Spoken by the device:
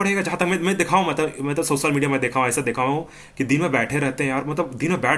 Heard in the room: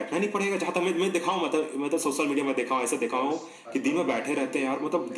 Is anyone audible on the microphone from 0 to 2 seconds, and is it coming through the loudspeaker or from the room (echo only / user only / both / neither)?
echo only